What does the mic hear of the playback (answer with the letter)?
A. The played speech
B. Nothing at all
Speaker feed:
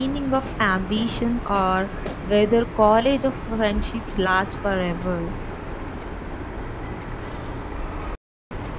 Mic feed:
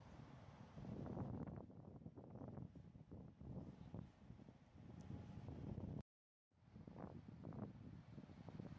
B